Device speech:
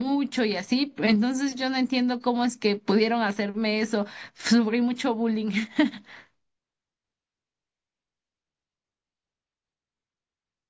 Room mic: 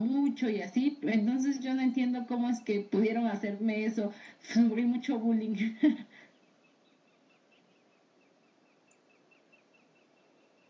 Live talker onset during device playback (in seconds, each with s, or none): none